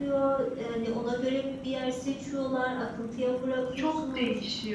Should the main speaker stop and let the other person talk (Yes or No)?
Yes